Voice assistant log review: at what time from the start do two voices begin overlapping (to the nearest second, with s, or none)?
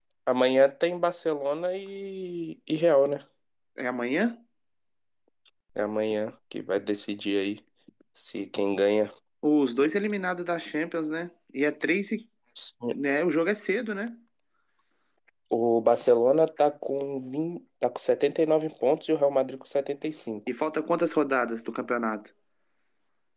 none